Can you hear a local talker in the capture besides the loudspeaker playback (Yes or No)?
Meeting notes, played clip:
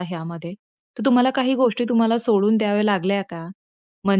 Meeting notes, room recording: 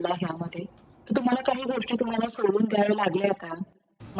No